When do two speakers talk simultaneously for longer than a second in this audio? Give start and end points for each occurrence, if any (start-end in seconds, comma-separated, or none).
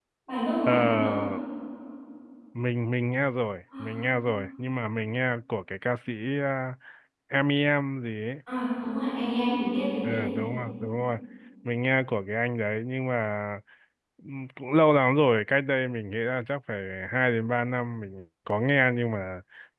none